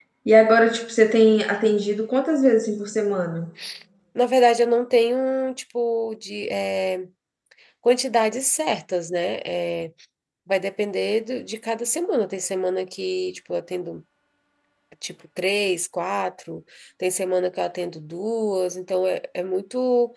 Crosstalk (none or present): none